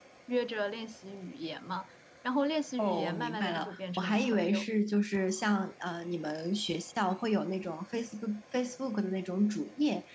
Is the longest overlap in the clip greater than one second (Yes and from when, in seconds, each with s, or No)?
Yes, from 2.8 s